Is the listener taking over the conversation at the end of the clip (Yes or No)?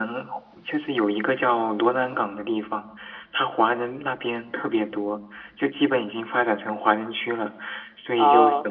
No